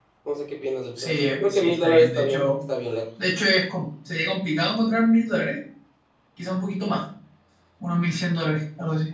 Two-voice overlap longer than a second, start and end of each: 1.0-2.6

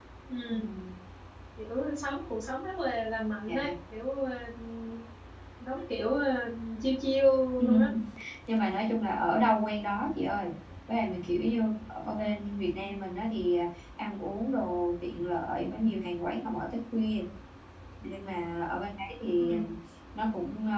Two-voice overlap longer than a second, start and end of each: none

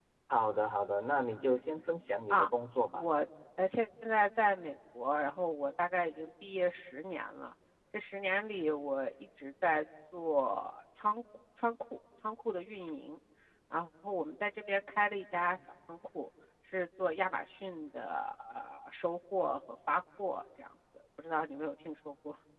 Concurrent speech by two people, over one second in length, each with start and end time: none

